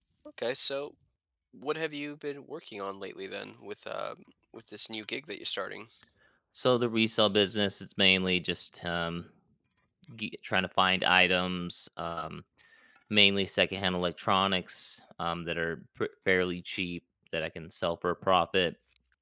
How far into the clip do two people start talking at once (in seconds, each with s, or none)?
none